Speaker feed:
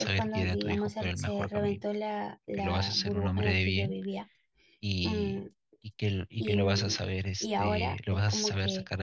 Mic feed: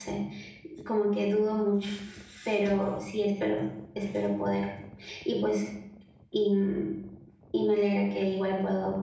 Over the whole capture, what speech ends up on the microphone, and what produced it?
user only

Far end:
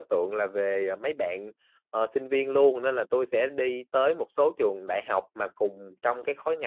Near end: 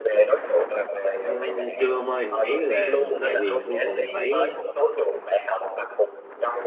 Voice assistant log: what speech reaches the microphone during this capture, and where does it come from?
both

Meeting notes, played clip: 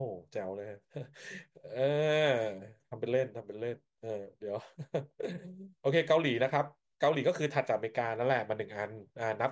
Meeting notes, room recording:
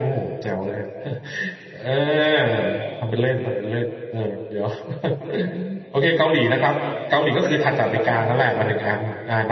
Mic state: both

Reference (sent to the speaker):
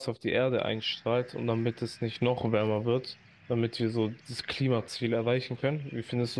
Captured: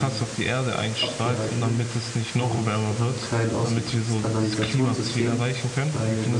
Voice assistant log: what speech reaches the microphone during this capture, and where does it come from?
both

